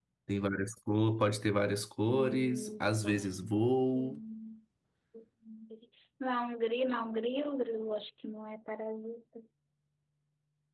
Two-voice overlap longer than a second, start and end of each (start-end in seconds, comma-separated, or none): 2.1-3.3